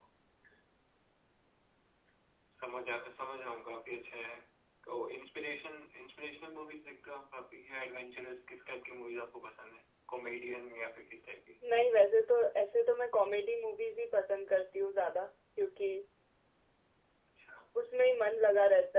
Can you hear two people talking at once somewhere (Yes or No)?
No